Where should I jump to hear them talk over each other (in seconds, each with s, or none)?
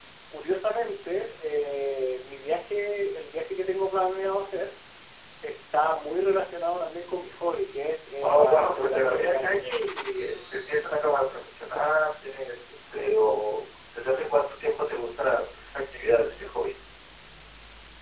8.2 s